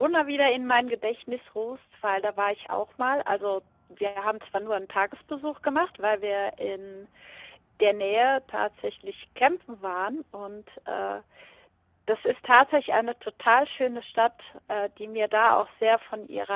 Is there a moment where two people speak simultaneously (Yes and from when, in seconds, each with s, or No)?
No